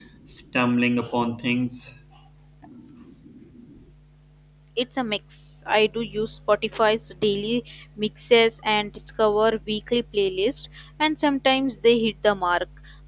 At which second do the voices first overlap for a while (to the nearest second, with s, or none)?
none